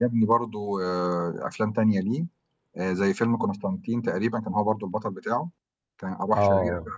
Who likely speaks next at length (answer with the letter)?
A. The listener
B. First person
A